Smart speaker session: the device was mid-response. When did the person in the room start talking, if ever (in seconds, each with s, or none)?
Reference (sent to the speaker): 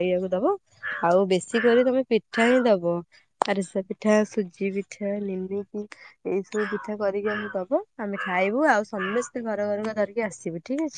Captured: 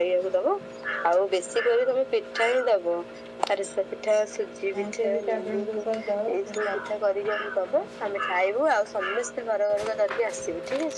4.8 s